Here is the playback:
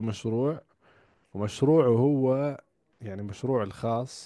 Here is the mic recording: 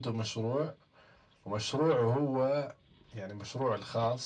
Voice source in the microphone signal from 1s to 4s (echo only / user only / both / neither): echo only